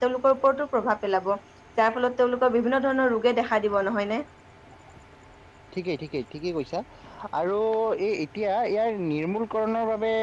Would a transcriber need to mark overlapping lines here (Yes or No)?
No